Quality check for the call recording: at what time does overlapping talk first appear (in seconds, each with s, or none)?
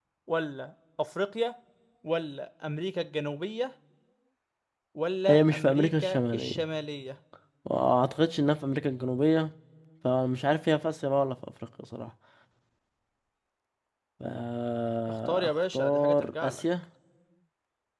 5.3 s